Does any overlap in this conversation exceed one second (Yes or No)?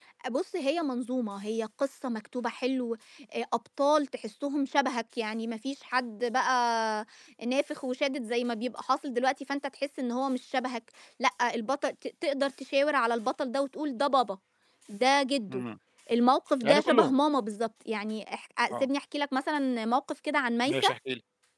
No